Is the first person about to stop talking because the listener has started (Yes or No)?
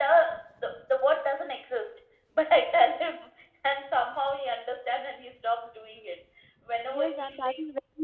Yes